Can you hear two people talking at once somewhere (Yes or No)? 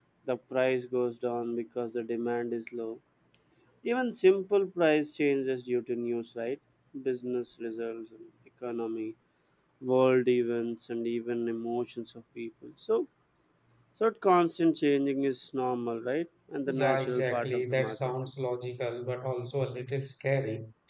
Yes